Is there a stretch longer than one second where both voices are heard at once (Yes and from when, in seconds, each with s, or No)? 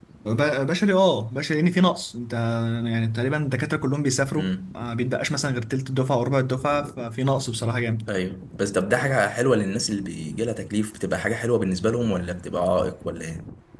No